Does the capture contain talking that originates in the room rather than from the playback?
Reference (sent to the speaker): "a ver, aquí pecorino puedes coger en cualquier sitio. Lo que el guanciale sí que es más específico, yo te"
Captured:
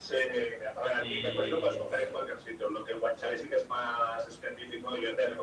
Yes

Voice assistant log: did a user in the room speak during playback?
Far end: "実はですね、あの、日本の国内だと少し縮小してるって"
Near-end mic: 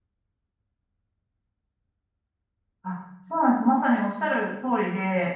Yes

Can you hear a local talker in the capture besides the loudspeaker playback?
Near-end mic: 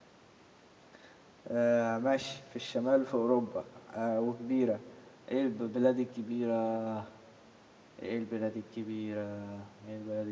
Yes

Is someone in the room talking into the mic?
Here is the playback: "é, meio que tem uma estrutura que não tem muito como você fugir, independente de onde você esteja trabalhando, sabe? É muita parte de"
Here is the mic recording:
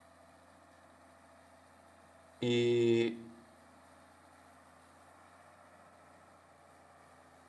Yes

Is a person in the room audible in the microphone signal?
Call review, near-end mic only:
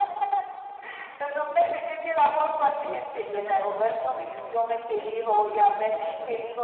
Yes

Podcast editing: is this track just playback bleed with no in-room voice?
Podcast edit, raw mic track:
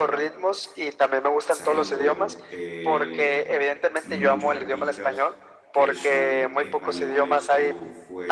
No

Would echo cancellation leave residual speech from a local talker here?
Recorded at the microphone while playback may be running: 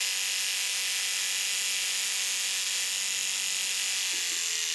No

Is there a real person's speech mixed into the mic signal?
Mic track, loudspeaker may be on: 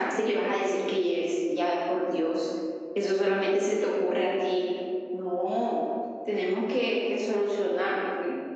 No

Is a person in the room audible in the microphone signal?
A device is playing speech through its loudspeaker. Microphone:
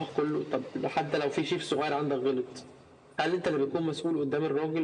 No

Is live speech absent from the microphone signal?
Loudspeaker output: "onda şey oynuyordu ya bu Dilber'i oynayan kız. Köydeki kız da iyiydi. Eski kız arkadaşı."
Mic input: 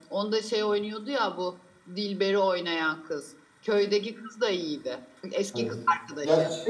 No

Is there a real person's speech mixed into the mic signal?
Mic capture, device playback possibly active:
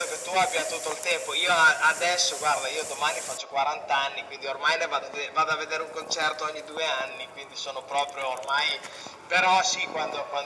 No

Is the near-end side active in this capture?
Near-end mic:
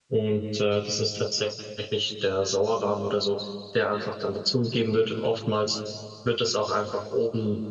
Yes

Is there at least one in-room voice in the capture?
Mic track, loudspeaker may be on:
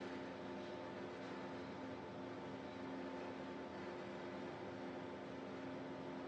No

